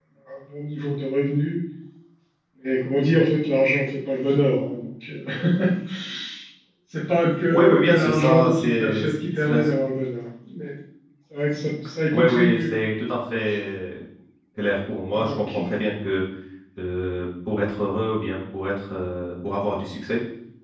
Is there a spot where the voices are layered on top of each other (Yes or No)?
Yes